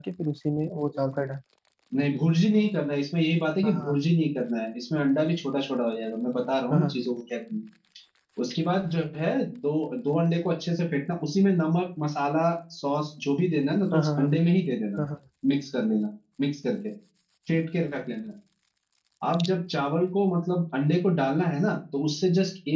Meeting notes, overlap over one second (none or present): none